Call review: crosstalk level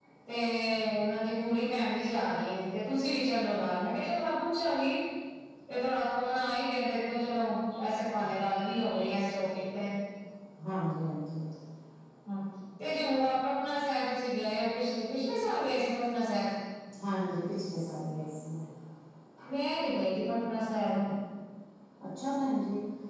none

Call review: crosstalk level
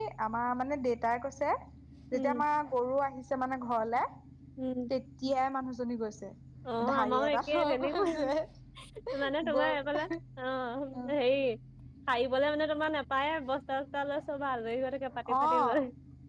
present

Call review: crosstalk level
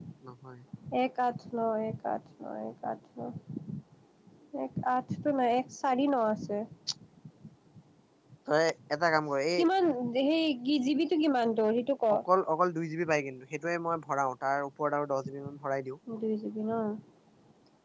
none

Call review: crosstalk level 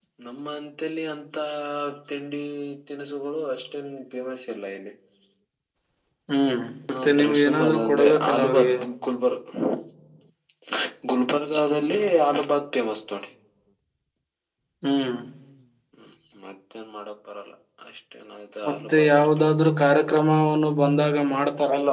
present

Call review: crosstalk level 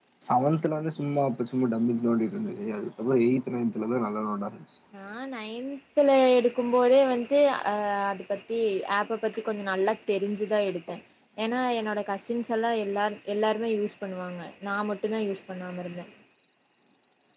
none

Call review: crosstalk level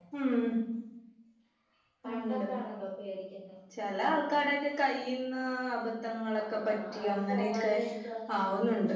present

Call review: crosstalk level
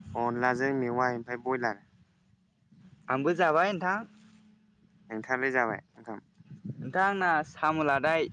none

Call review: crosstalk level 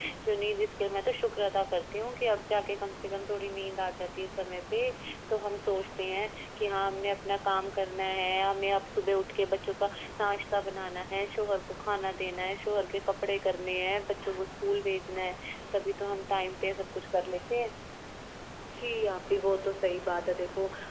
none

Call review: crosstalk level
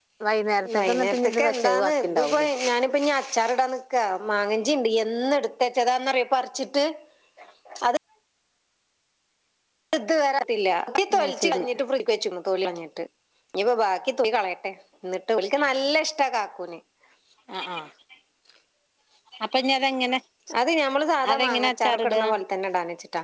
present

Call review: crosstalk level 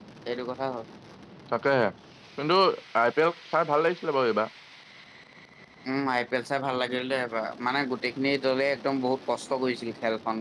none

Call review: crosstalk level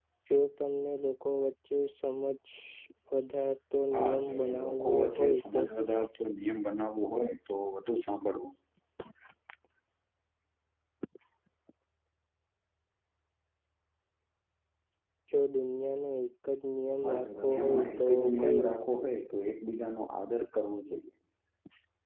present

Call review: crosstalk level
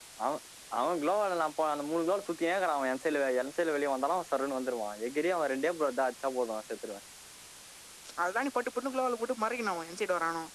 none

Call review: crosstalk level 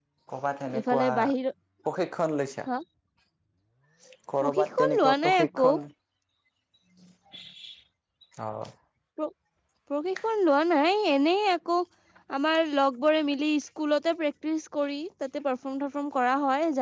present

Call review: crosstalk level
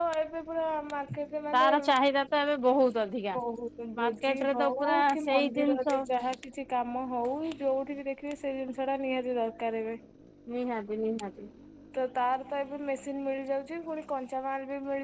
present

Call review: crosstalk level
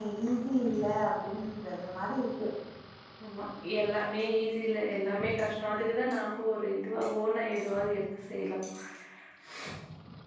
none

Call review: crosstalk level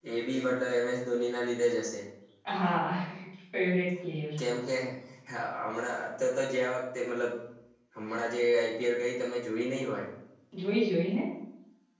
none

